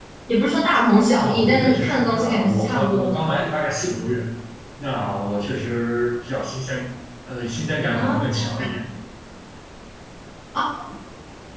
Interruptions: present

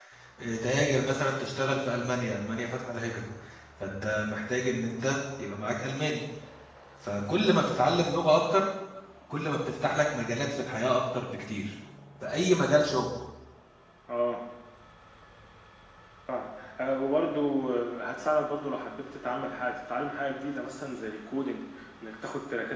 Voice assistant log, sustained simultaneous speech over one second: none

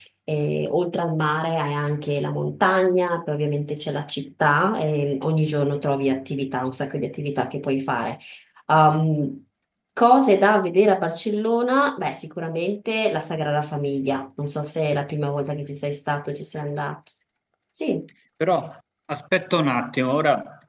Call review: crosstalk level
none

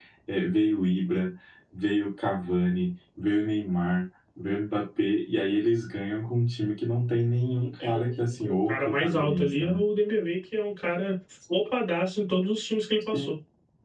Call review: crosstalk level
present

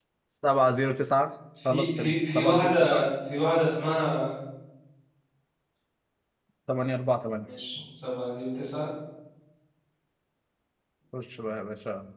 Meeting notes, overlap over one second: present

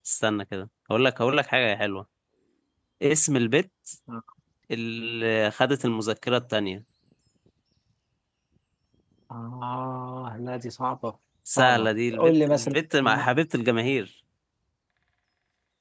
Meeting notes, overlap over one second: present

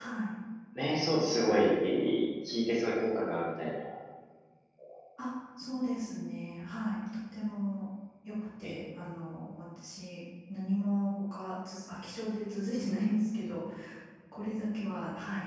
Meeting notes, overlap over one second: none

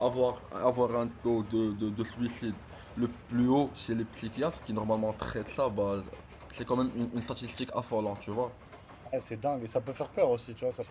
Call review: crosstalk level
none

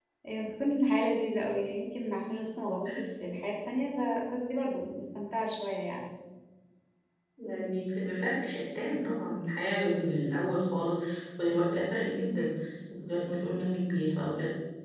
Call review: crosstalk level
none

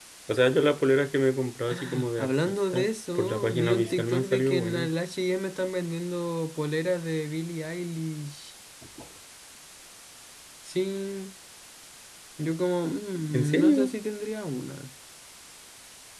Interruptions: present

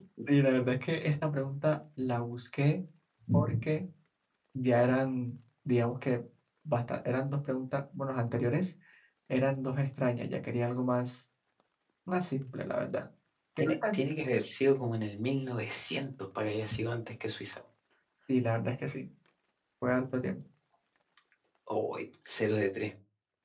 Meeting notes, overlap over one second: none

